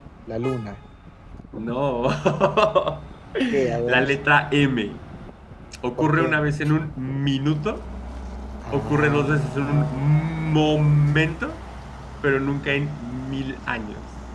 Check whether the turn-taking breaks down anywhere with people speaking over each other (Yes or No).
Yes